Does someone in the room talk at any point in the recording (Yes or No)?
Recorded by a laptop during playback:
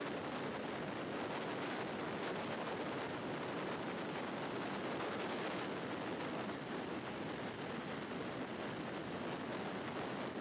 No